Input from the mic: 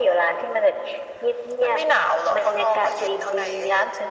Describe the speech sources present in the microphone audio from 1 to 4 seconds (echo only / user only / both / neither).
echo only